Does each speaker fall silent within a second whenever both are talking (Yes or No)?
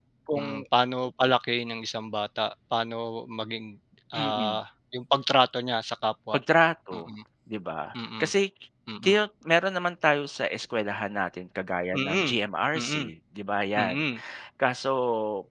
Yes